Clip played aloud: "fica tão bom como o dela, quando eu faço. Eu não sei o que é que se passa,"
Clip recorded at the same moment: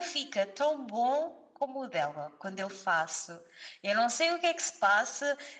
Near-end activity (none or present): none